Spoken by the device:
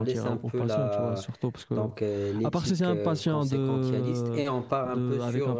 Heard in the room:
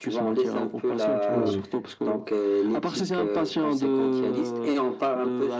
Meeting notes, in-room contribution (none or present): present